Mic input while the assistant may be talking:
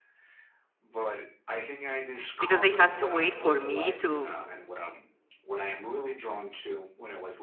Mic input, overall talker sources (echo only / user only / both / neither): both